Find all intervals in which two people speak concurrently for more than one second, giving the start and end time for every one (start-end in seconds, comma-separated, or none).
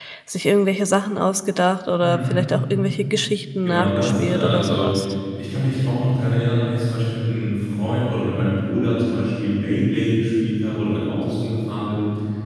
3.6-4.9